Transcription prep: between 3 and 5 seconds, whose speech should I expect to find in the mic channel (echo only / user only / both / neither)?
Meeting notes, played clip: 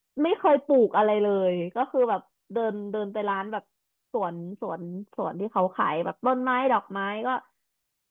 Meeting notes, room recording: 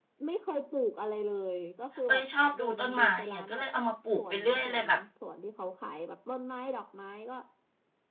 both